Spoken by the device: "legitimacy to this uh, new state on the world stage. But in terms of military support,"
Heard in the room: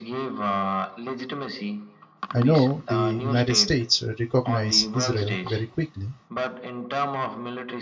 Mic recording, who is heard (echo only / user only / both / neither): both